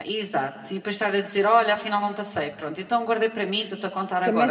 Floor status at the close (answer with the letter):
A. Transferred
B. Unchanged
A